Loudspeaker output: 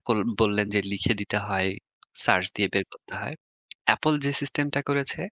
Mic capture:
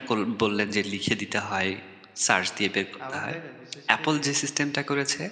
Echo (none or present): present